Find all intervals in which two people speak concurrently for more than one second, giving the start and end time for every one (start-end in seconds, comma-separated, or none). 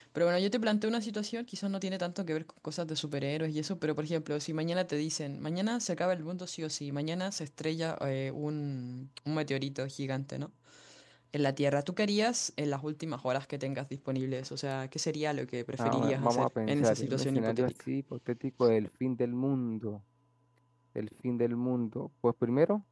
15.8-17.7